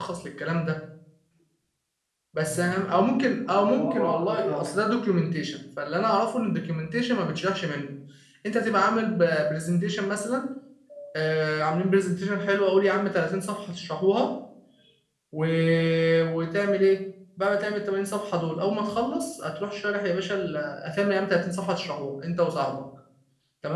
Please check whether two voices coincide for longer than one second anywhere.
Yes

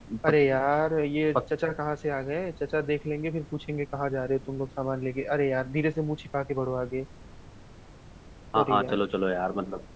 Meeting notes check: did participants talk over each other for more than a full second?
No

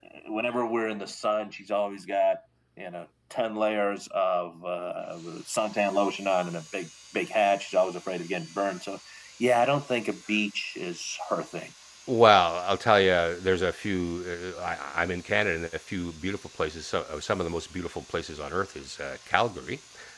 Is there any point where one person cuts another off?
No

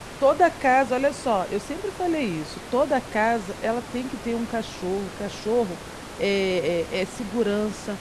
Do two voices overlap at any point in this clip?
No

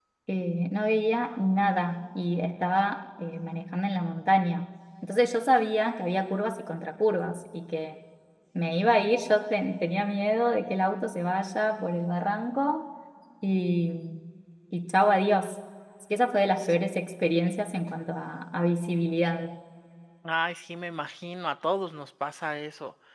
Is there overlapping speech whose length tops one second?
No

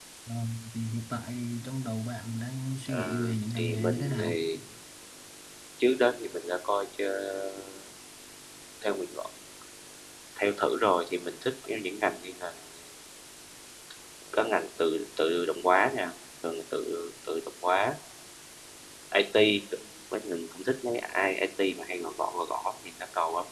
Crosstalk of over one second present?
Yes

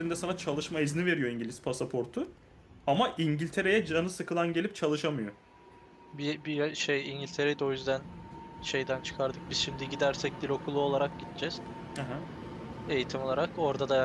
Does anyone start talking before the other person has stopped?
No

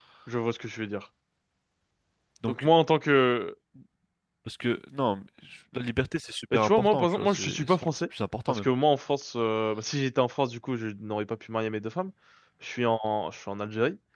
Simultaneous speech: Yes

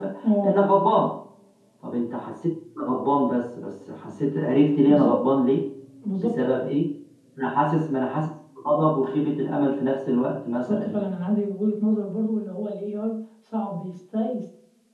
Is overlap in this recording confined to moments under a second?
Yes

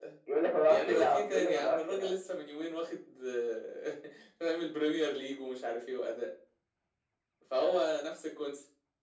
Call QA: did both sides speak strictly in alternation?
No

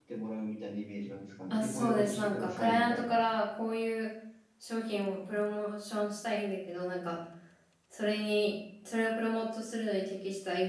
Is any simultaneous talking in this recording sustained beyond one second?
Yes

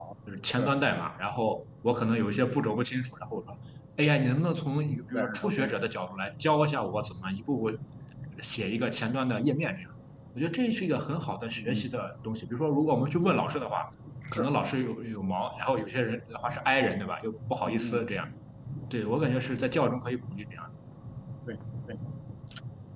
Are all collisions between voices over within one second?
Yes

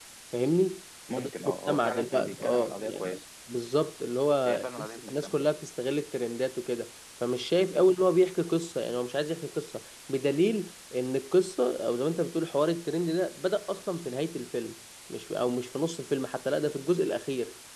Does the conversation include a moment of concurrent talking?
Yes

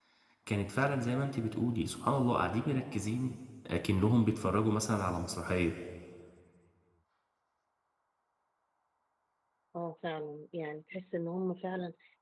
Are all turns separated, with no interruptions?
Yes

